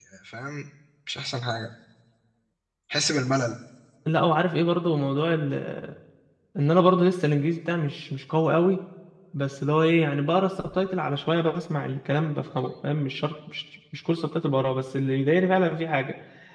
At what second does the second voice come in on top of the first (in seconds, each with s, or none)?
none